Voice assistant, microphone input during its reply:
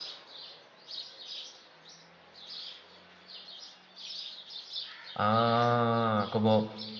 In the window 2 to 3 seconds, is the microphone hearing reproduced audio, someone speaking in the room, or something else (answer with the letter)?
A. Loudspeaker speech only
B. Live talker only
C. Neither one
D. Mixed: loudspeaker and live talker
C